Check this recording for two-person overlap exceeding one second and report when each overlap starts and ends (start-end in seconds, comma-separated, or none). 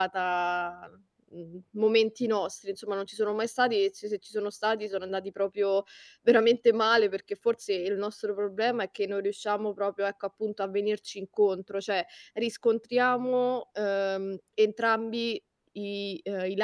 none